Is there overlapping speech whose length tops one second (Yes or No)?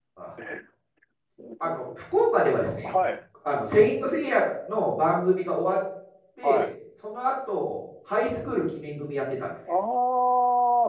No